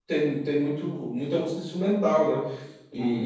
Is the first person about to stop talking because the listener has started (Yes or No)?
Yes